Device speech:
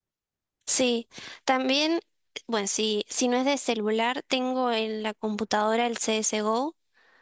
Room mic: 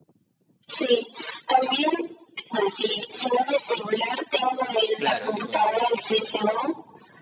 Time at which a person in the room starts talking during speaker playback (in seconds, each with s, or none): 5.0 s